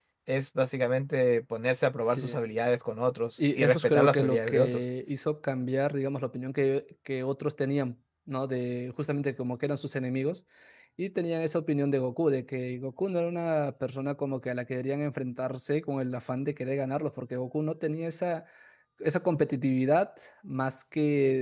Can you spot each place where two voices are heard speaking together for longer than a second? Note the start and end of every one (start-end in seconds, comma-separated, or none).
3.4-4.8